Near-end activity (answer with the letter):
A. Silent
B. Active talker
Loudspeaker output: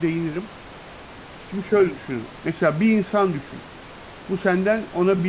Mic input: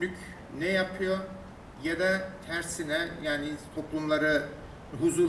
B